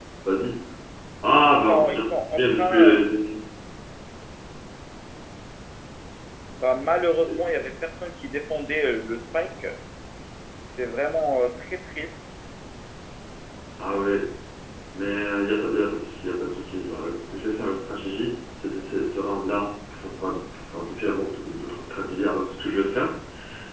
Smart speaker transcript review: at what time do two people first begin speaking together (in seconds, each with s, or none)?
1.4 s